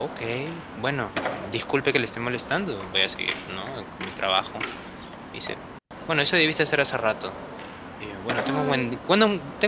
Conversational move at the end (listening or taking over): listening